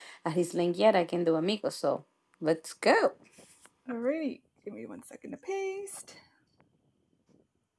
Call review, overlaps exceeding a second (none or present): none